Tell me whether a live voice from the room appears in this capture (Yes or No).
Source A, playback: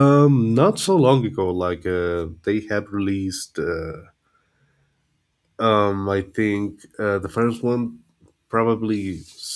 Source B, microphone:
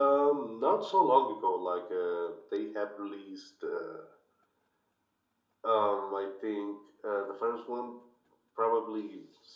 No